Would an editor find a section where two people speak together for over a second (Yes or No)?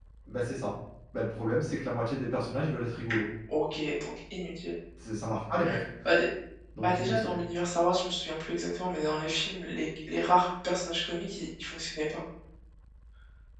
No